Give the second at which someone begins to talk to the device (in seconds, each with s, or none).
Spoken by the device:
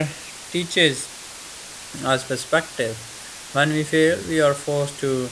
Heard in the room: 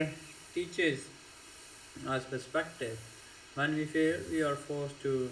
none